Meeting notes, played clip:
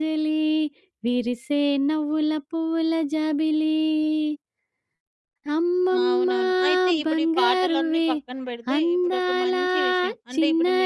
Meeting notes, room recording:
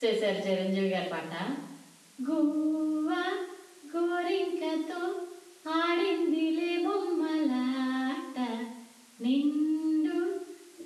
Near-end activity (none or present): present